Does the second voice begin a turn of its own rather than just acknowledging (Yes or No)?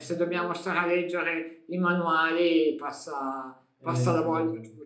No